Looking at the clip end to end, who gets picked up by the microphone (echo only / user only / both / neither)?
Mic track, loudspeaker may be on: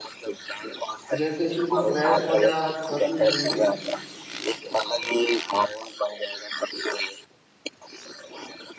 both